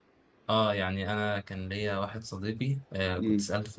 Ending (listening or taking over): listening